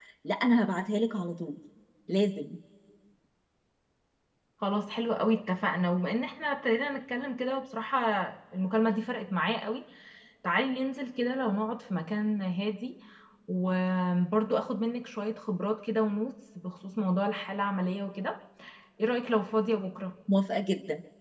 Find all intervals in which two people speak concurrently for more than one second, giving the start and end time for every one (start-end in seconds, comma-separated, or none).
none